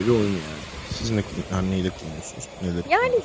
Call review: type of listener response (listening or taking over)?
taking over